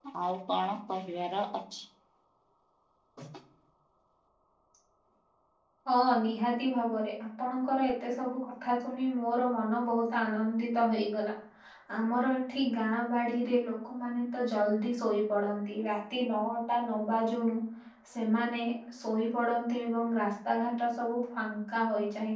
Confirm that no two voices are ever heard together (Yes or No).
Yes